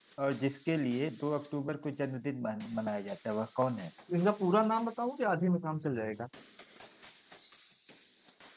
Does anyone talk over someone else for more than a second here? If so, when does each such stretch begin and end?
none

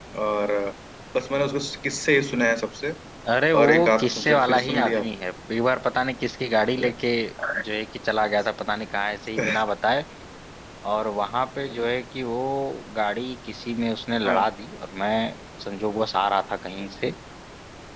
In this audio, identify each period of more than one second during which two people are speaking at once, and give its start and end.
3.6-5.0

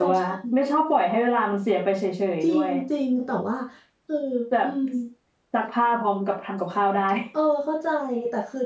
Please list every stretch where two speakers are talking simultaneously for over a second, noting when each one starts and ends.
none

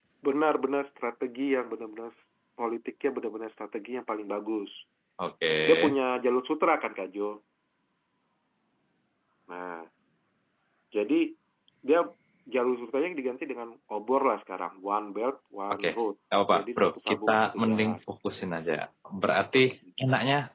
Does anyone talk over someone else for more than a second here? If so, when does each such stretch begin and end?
16.5-18.0

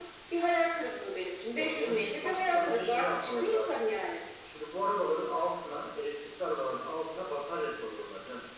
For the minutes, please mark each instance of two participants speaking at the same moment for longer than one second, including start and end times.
1.5-3.8

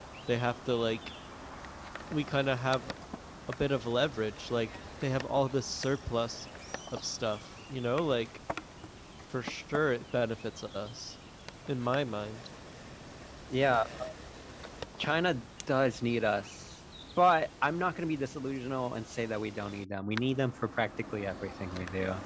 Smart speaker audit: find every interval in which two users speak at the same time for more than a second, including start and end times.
none

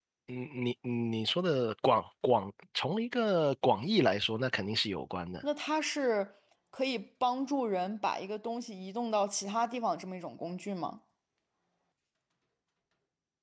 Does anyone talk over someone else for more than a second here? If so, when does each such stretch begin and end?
none

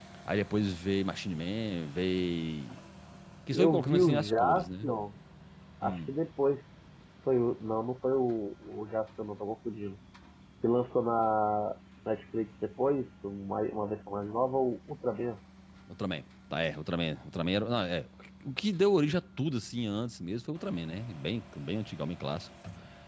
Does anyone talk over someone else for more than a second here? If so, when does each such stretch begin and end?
3.5-4.9

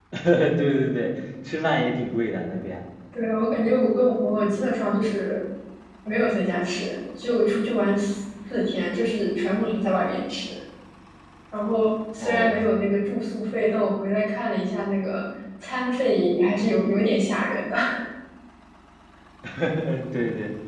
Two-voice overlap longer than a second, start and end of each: none

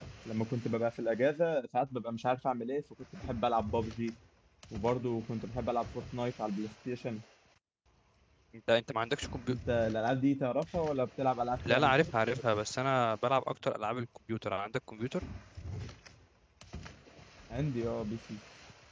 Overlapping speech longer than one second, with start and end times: none

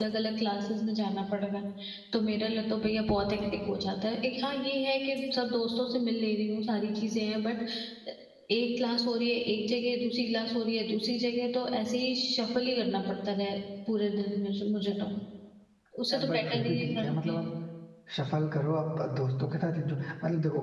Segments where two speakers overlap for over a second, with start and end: 16.1-17.4

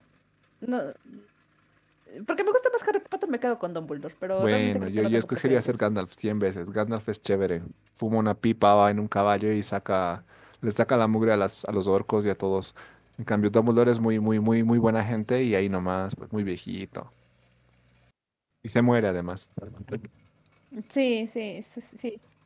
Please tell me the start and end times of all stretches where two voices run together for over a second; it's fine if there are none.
4.4-5.8

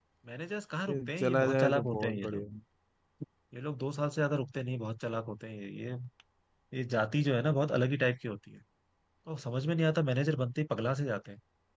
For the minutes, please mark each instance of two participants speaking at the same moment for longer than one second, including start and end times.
0.9-2.4

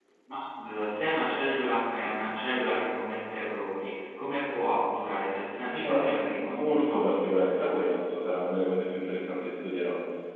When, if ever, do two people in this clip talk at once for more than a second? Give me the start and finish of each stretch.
5.7-8.0

